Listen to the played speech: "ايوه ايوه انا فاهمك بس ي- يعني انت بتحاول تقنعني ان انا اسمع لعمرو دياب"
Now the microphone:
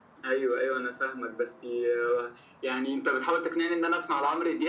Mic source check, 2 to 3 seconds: echo only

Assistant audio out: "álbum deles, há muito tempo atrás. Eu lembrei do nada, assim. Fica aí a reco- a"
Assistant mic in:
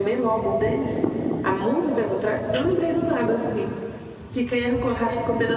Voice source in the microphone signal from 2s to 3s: echo only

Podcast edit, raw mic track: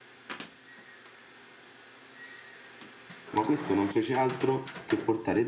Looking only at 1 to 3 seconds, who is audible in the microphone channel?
neither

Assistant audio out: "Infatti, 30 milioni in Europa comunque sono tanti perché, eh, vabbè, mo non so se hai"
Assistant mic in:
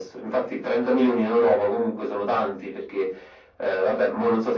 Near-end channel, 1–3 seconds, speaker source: echo only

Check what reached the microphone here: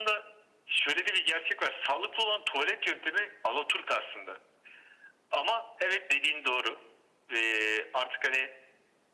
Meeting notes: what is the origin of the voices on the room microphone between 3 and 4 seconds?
echo only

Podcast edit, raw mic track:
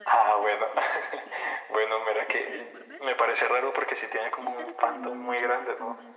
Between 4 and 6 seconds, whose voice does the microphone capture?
both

